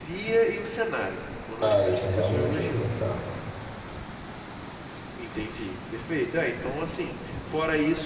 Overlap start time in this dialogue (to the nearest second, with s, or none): 2 s